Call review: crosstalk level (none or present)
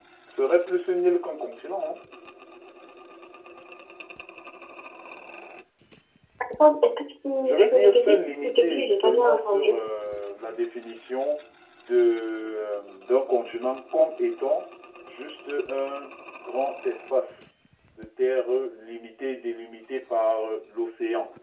present